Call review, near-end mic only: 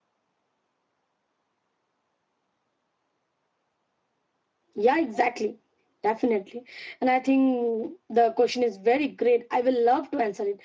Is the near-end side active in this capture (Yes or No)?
Yes